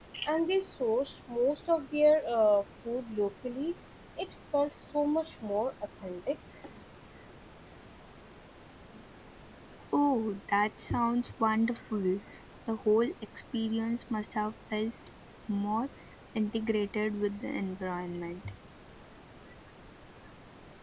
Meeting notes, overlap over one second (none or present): none